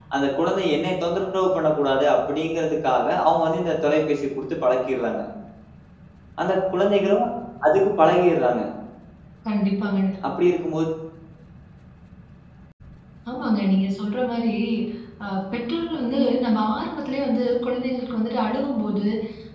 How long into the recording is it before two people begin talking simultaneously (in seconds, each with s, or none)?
none